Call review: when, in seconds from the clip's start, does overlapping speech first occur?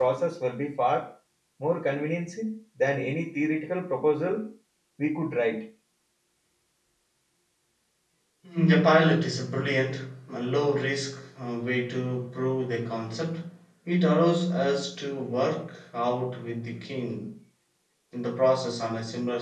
none

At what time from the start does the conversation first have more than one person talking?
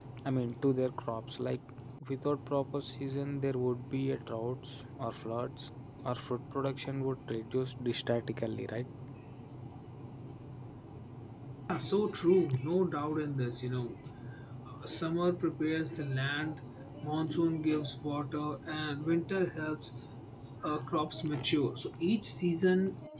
none

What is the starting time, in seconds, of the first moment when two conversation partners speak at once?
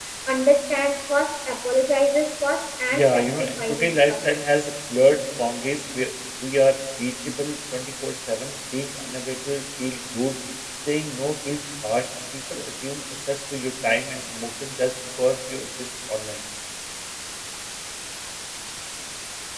2.9 s

